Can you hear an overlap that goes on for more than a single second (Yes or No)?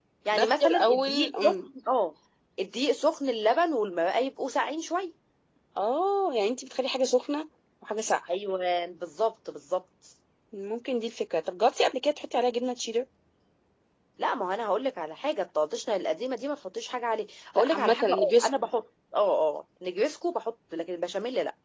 Yes